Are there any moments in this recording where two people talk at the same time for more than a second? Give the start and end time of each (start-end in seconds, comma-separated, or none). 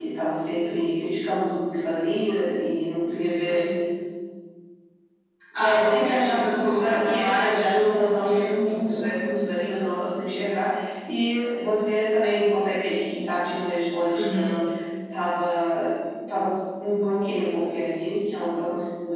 5.6-9.2